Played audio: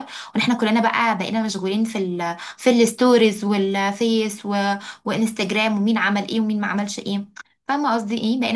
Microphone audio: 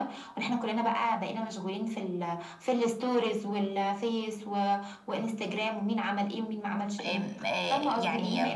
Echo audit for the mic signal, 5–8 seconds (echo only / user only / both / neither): both